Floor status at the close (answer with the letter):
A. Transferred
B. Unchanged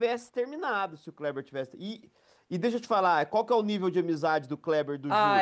A